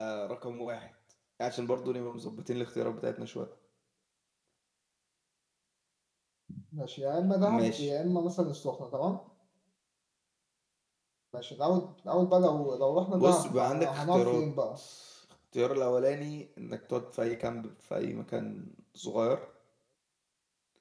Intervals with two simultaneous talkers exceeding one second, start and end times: 13.1-14.4

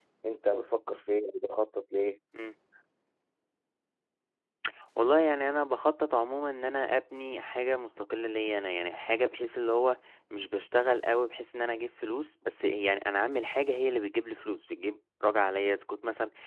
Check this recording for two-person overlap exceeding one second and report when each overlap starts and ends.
none

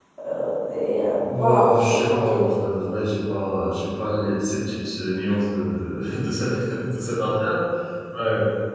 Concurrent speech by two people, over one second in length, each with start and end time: 1.2-2.4

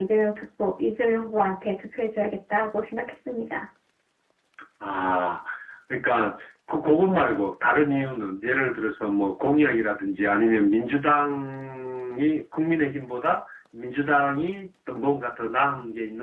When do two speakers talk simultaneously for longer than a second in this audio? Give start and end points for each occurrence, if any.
none

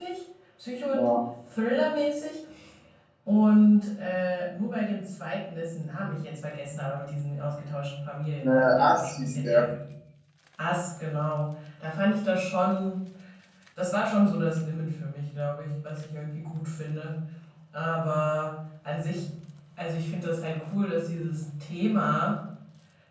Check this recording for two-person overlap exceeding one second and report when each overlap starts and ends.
8.4-9.7

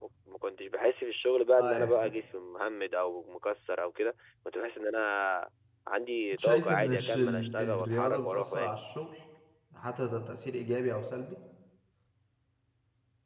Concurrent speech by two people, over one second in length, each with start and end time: 6.4-8.8

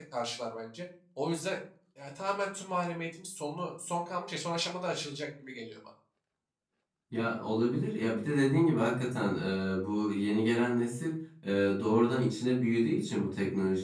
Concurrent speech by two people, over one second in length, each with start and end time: none

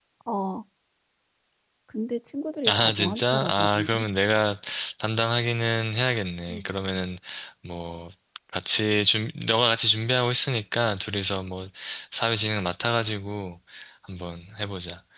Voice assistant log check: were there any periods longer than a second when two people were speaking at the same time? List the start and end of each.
2.7-4.0

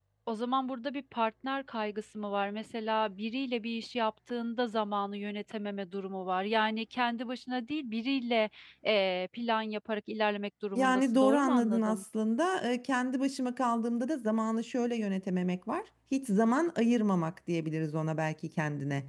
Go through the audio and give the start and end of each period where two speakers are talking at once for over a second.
10.8-12.0

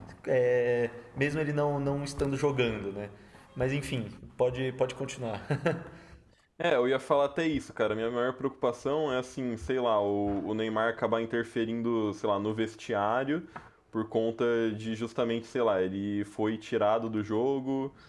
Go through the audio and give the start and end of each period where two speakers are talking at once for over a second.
none

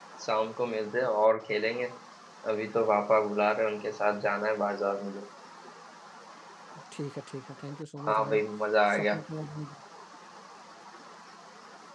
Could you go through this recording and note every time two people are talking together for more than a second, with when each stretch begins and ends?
none

